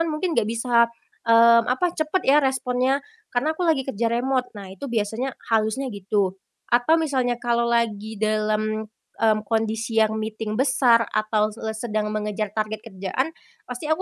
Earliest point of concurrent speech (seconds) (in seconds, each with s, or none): none